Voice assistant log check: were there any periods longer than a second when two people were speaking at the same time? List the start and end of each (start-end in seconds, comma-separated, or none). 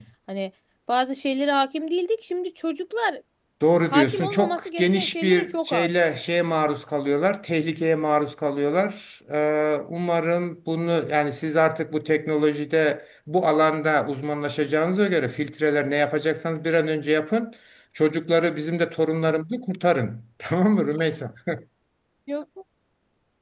3.9-5.9